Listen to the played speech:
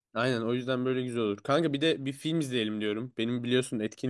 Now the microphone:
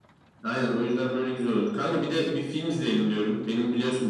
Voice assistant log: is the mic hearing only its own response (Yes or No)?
Yes